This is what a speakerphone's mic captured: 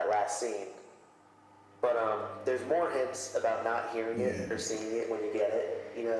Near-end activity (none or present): present